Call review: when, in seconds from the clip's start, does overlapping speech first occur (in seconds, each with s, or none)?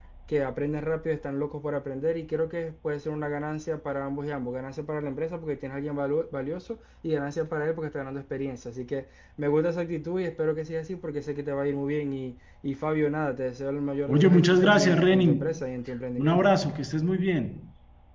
14.1 s